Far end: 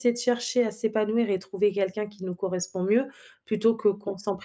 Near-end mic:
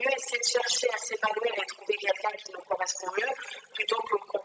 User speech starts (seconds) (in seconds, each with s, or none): none